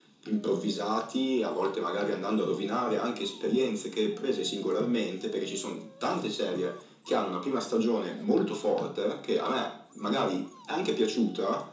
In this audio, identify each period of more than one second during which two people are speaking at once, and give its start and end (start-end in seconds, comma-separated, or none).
none